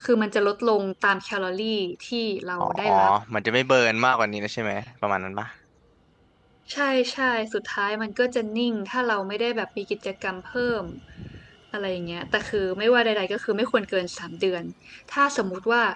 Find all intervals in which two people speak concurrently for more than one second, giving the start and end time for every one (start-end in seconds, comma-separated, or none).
none